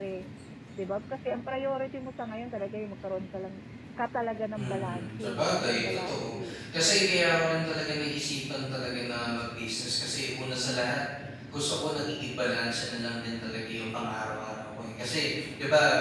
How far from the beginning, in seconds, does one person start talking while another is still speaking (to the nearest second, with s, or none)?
5 s